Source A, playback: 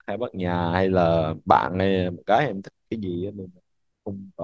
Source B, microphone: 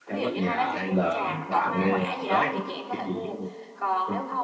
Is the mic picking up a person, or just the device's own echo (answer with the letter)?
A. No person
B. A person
B